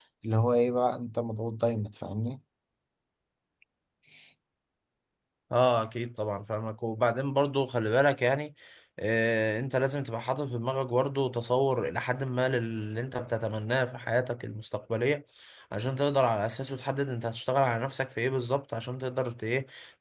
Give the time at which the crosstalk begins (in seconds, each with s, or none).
none